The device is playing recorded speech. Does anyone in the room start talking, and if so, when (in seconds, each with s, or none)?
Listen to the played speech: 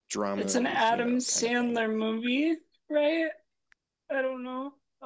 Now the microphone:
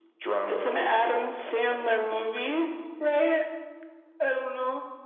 none